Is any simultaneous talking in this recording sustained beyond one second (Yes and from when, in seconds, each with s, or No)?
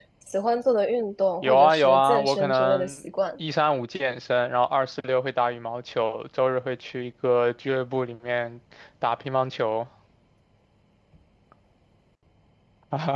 Yes, from 1.4 s